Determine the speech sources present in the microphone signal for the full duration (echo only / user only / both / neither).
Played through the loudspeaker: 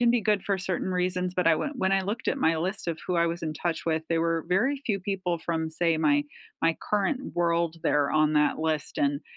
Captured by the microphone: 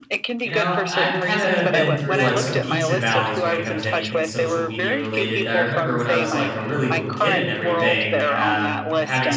both